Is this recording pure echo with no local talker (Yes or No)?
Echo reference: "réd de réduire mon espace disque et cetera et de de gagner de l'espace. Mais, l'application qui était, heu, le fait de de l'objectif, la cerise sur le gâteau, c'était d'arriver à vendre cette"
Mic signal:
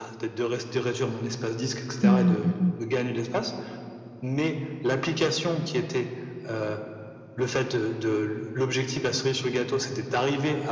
No